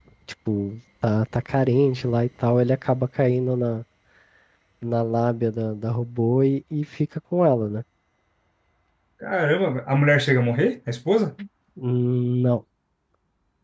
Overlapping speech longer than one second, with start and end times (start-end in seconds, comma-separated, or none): none